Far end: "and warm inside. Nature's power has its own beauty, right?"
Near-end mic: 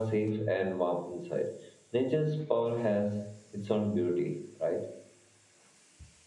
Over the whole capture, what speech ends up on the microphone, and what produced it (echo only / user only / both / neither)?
echo only